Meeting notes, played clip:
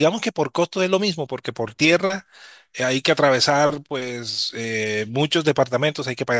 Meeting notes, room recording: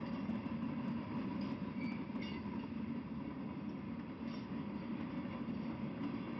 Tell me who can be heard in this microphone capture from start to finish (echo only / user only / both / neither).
neither